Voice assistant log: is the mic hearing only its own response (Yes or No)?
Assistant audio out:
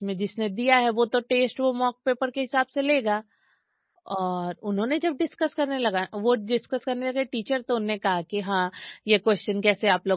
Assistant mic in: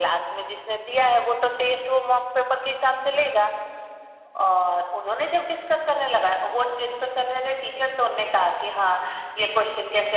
Yes